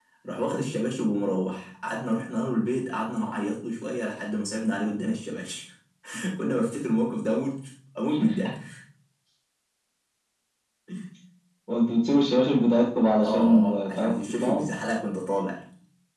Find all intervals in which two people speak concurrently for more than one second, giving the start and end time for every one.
13.2-14.6

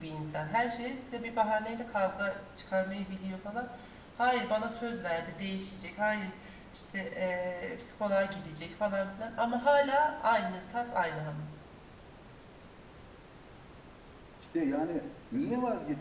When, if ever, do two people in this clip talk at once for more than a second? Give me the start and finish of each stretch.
none

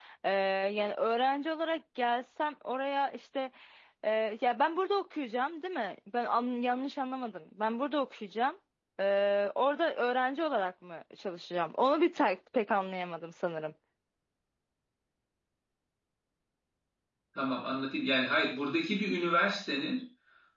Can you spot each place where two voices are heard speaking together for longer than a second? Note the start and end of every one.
none

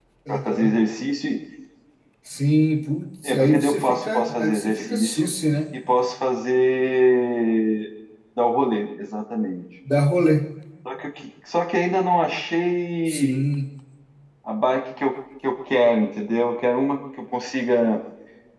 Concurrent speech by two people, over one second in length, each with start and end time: 3.2-5.3

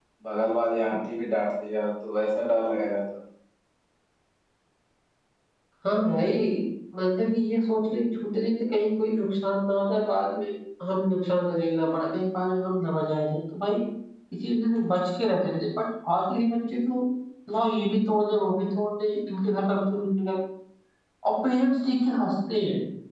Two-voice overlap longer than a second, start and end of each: none

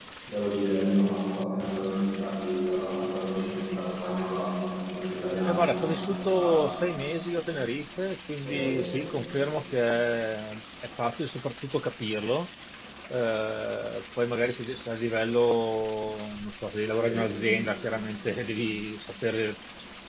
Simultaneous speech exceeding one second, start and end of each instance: 5.5-6.8

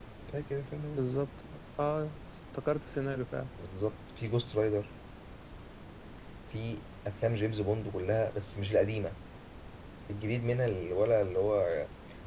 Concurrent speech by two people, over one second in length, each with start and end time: none

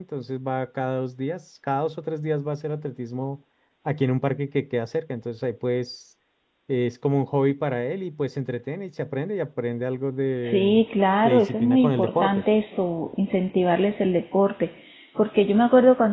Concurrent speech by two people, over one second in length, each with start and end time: 11.2-12.4

